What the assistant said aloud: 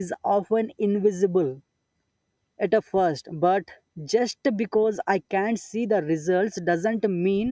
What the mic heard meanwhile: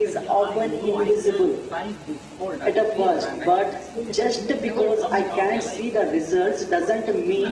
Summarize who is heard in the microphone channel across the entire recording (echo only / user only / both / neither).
both